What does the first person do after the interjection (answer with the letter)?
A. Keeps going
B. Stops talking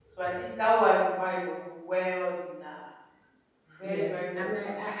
B